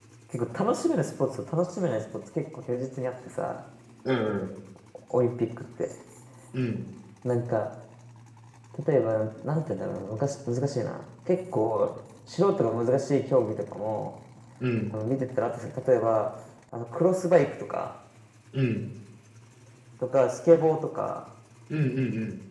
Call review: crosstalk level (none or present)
none